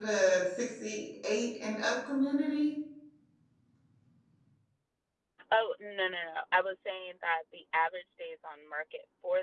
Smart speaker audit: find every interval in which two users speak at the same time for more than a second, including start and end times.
none

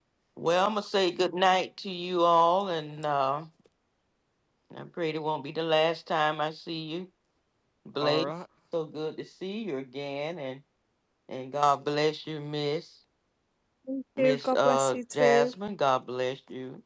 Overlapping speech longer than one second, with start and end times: 14.2-15.5

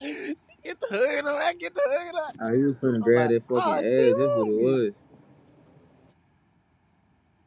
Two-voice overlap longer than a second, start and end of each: 3.0-4.7

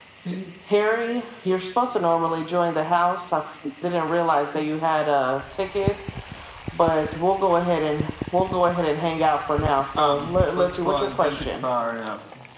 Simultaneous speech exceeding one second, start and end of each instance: 10.0-11.6

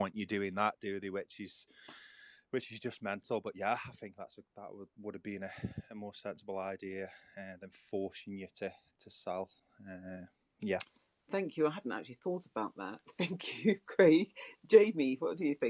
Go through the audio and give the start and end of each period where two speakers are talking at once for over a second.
none

